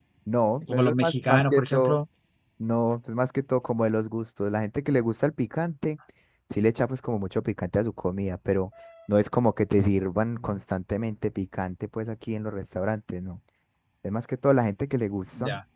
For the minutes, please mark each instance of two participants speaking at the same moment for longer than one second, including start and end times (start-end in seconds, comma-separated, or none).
0.7-2.0